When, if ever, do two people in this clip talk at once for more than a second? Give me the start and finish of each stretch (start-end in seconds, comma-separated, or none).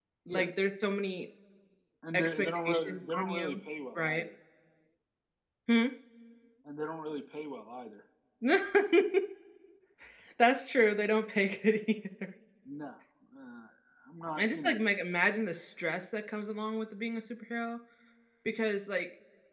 2.1-3.6